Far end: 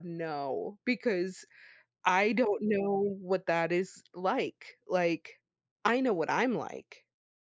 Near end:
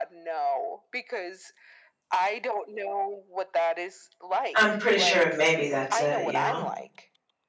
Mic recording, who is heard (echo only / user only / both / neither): both